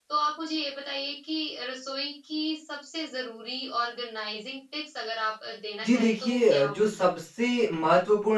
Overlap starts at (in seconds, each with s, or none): 5.8 s